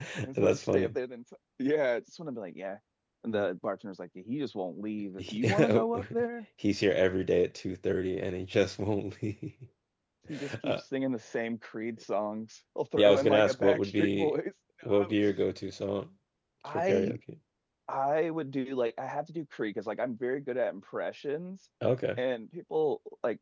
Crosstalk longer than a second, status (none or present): present